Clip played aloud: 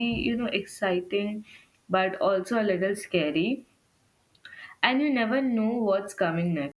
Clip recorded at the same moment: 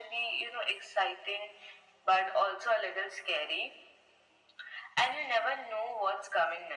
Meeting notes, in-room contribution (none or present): none